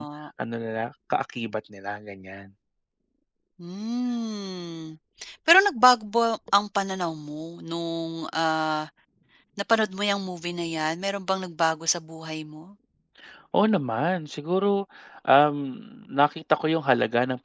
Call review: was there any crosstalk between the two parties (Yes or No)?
No